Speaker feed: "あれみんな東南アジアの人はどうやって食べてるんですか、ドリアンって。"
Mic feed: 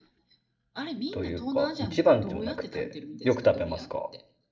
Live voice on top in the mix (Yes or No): Yes